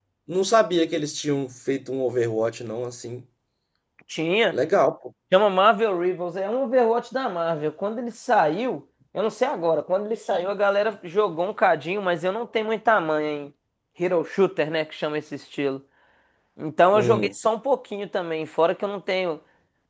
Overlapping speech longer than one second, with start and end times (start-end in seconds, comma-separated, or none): none